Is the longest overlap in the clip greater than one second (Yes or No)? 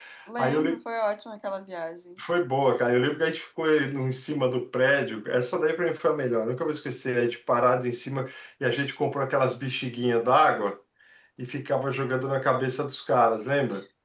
No